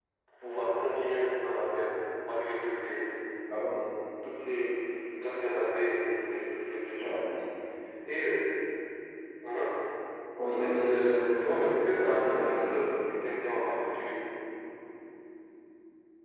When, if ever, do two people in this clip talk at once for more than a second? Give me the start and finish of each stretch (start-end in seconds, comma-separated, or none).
10.6-12.6